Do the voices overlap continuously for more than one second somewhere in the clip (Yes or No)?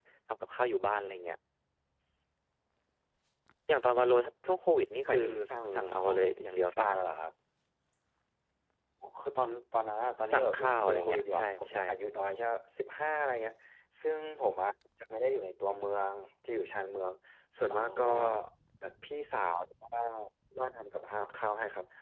Yes